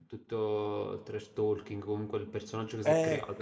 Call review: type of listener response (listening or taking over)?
taking over